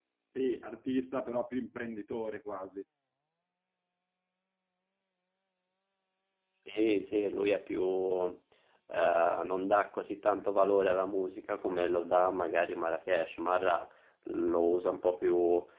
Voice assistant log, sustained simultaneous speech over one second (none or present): none